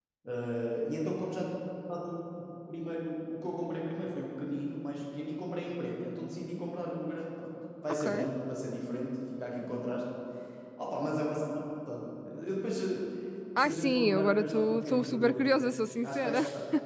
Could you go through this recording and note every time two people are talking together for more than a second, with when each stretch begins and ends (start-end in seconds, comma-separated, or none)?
13.6-16.4